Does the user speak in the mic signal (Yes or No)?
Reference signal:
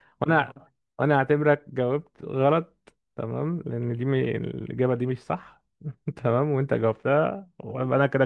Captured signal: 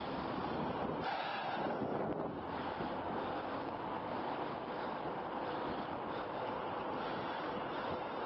No